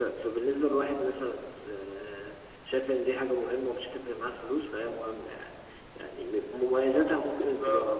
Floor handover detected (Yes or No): No